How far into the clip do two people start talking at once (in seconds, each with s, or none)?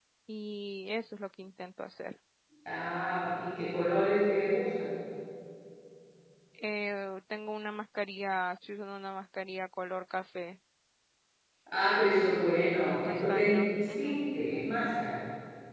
12.8 s